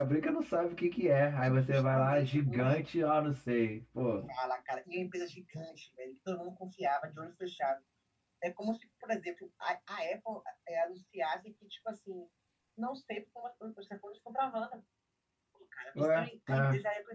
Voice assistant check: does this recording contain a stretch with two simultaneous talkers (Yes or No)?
Yes